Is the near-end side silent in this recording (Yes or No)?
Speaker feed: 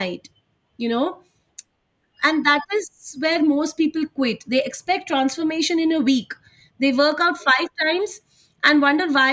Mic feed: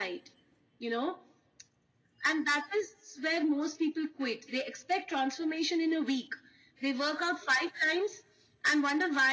Yes